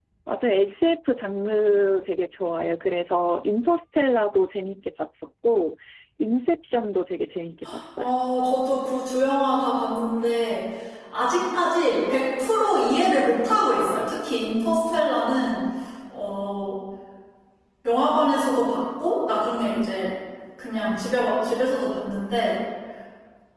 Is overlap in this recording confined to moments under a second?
Yes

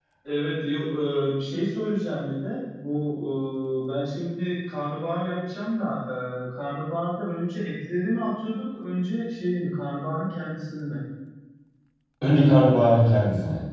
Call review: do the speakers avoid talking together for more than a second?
Yes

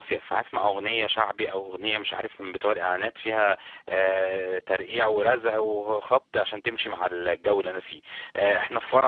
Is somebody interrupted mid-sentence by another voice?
No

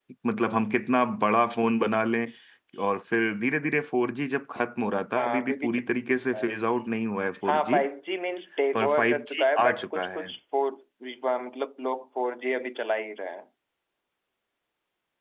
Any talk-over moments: Yes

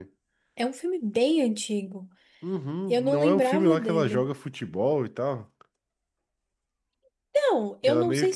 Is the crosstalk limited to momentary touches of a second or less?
No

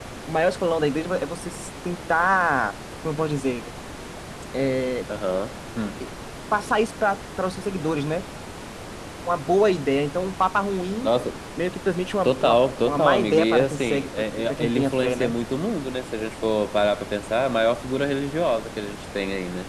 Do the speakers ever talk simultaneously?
Yes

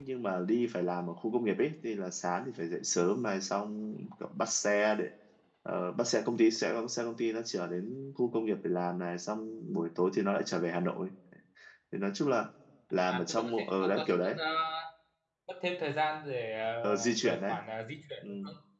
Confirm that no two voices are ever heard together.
No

